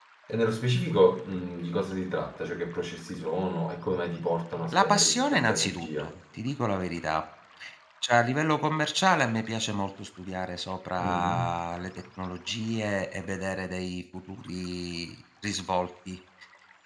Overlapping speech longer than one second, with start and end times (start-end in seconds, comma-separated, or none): 4.7-6.1